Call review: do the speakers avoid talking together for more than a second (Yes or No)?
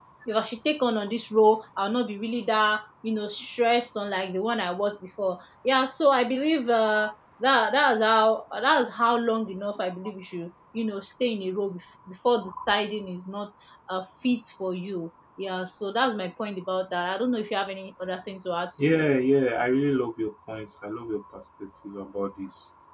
Yes